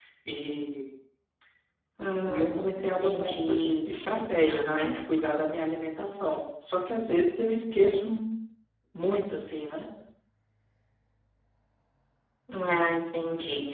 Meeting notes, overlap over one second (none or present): present